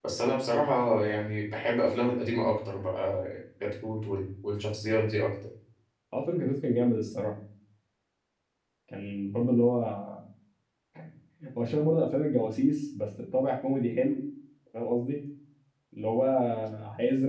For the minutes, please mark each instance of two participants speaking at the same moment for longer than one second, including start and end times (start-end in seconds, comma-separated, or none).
none